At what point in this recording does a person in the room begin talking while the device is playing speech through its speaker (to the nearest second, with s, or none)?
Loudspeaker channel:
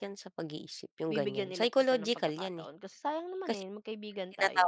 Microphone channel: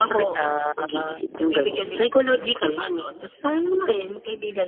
0 s